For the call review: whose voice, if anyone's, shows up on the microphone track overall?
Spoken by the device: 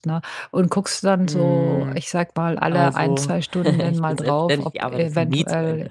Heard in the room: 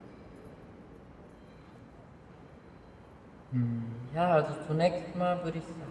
user only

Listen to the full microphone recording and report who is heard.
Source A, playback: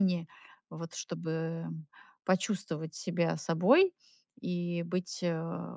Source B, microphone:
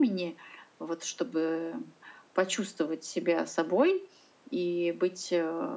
echo only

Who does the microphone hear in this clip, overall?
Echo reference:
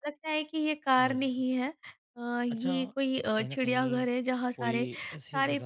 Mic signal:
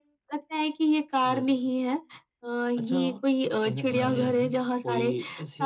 both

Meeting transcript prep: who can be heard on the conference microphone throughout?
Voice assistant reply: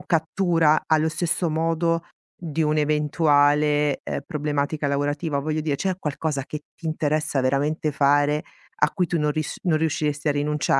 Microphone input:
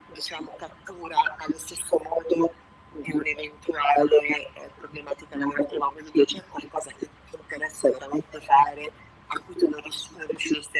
echo only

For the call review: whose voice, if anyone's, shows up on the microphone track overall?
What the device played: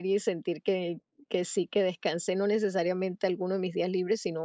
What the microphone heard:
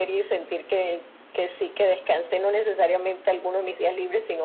echo only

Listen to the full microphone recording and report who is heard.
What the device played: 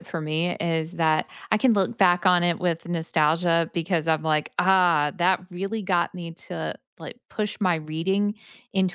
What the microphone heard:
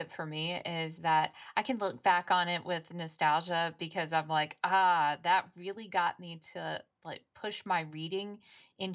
echo only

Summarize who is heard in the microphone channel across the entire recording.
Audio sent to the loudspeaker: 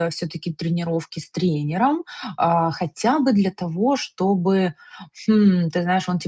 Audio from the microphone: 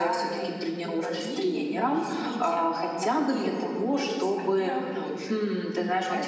both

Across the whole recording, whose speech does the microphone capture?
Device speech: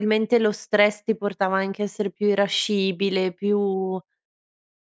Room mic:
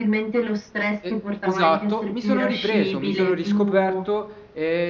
both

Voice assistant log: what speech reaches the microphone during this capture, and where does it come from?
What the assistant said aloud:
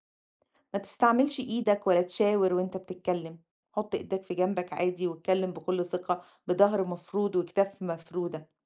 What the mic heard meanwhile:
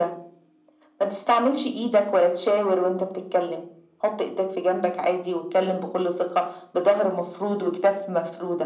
echo only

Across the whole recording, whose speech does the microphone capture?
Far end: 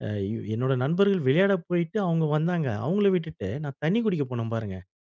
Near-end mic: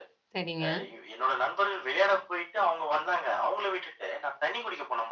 both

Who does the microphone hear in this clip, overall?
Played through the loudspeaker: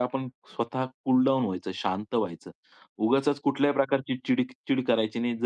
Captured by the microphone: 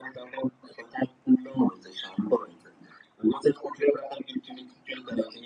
echo only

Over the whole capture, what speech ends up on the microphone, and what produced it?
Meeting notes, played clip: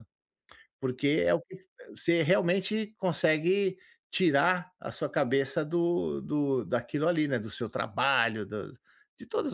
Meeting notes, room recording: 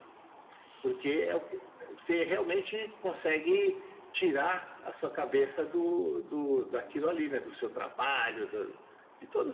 echo only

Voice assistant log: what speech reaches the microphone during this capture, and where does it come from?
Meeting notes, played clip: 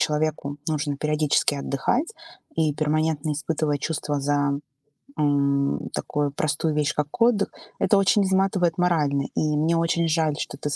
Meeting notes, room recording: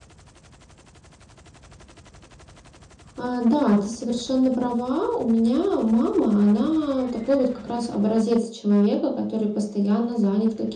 user only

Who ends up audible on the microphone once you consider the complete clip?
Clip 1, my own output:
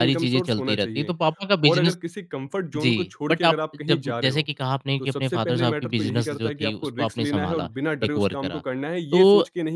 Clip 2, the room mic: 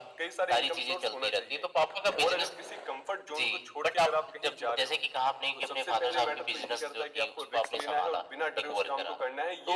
echo only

